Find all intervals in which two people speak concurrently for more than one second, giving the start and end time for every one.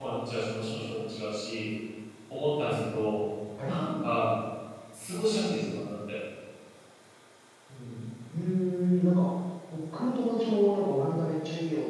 none

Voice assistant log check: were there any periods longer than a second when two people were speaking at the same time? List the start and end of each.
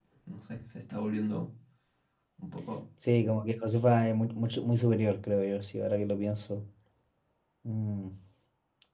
none

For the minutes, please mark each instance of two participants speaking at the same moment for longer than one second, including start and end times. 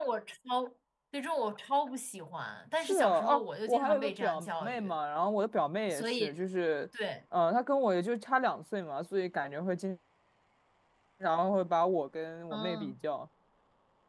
2.8-4.9

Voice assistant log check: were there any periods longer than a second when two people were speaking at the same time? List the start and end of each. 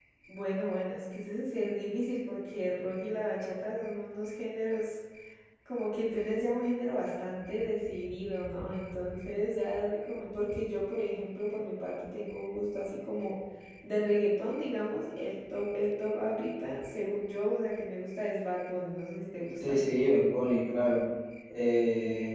none

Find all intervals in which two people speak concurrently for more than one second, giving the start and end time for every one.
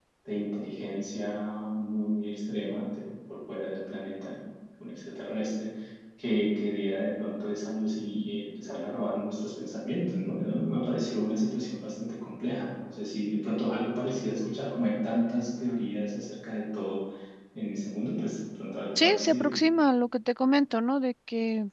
none

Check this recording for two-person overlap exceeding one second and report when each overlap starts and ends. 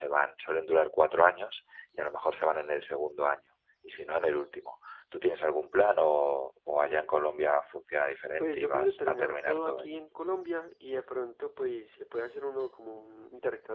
8.4-10.0

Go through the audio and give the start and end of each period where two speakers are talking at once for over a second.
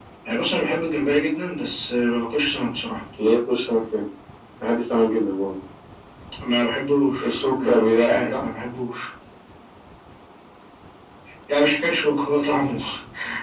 7.2-8.4

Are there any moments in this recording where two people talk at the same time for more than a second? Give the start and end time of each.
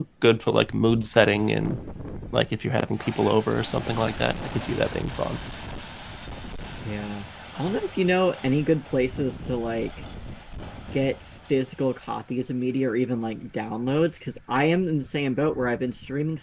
none

